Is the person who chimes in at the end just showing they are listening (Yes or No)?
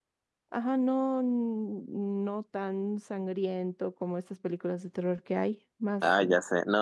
No